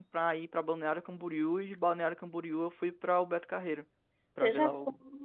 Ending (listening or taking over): taking over